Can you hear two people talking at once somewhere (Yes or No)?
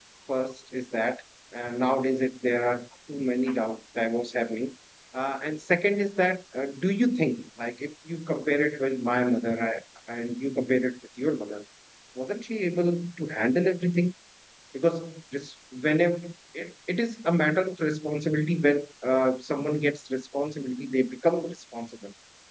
No